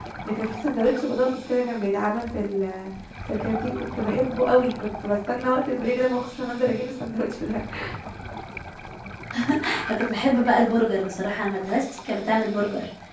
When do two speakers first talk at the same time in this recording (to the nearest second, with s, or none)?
none